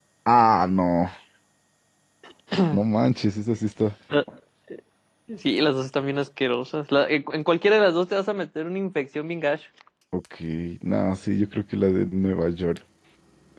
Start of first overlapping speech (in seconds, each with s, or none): none